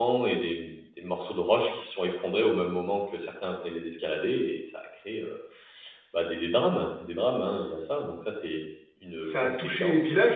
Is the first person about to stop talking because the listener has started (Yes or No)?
Yes